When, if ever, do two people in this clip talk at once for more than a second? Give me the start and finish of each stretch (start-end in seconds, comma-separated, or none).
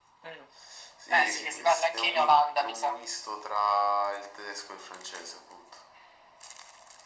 1.1-3.0